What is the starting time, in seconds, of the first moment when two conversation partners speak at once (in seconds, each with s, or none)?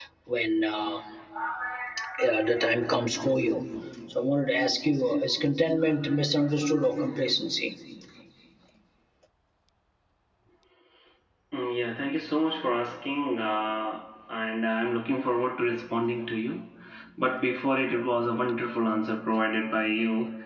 none